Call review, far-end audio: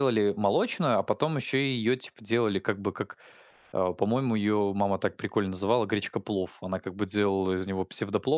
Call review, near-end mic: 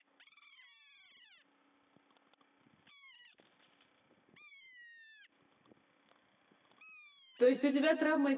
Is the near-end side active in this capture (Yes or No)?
Yes